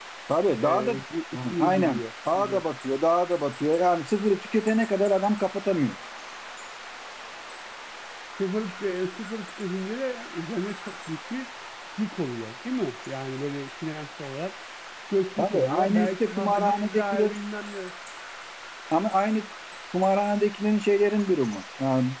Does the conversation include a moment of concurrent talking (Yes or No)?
Yes